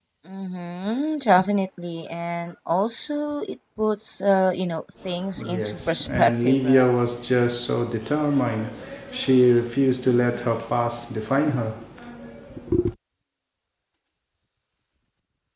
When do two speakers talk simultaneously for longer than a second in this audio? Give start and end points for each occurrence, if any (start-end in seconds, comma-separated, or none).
5.5-6.9